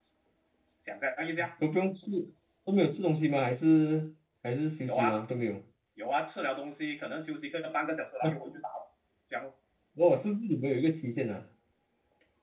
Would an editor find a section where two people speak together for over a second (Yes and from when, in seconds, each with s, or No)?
No